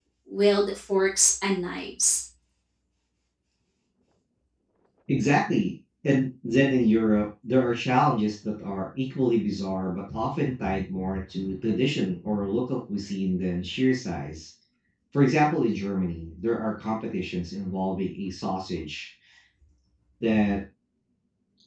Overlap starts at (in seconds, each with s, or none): none